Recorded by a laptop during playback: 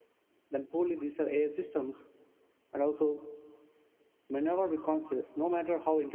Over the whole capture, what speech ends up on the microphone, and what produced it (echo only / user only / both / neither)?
user only